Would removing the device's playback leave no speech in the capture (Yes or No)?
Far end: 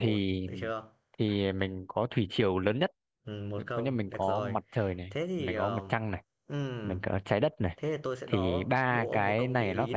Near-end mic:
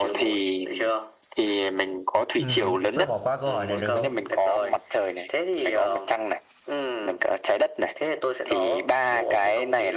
No